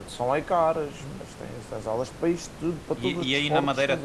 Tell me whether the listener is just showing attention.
No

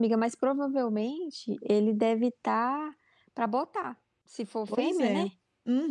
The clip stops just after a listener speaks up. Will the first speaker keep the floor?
No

